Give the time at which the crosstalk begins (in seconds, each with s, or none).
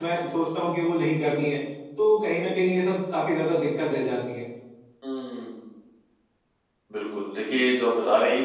none